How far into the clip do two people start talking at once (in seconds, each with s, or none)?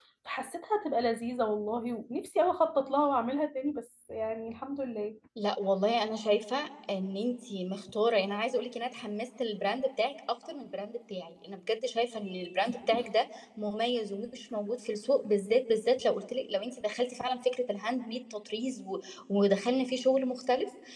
none